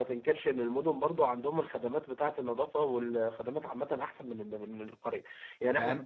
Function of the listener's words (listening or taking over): listening